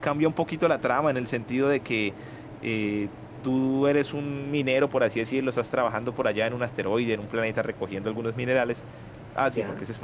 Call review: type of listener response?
listening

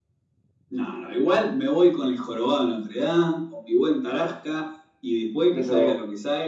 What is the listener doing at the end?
listening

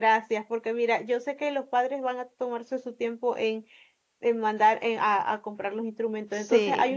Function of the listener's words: listening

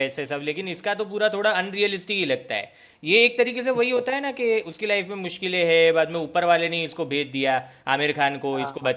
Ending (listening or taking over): listening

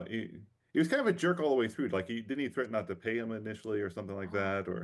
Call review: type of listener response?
taking over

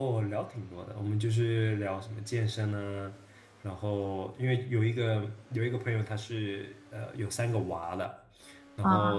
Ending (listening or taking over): listening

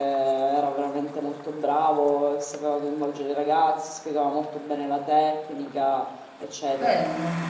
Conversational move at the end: taking over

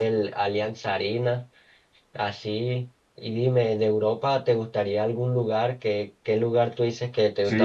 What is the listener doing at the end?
taking over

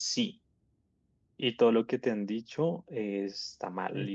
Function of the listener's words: listening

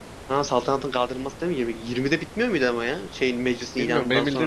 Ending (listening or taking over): taking over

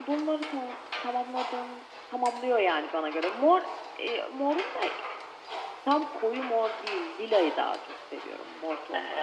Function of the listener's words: taking over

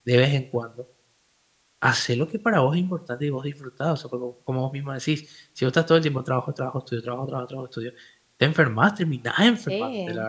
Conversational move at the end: taking over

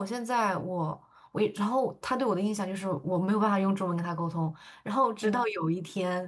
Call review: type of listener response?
listening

